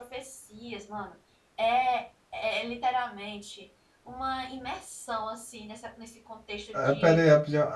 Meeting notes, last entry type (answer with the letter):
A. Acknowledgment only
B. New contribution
B